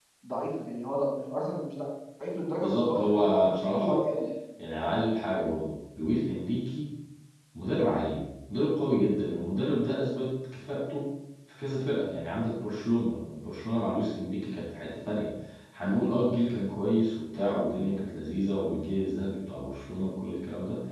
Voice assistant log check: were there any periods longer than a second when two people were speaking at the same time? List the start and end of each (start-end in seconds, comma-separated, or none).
2.6-4.0